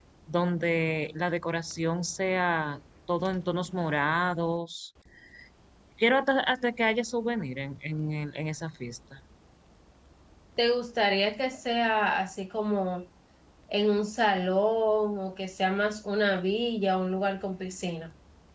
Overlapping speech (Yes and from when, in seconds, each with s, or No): No